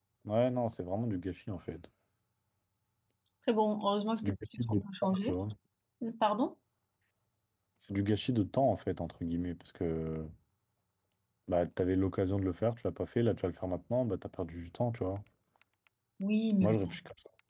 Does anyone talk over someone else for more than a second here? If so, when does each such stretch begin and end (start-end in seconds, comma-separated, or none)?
4.1-5.3